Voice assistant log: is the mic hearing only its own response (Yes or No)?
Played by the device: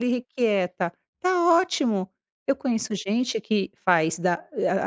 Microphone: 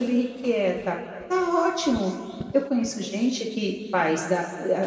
Yes